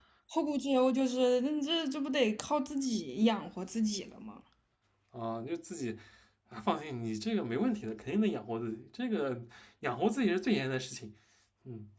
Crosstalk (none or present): none